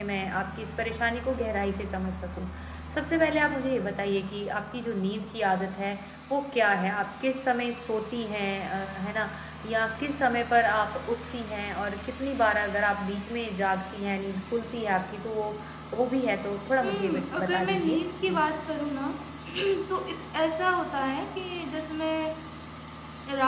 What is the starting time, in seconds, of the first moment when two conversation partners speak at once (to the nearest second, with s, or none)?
17 s